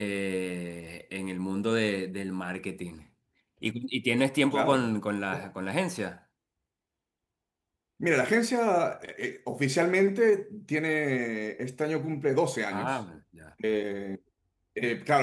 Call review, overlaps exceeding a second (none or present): none